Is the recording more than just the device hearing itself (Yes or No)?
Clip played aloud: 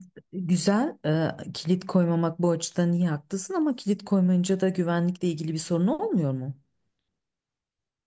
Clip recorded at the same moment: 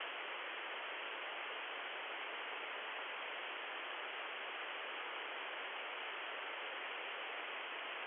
No